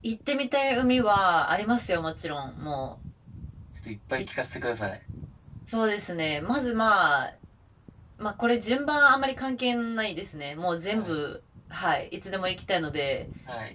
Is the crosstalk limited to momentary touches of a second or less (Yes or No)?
Yes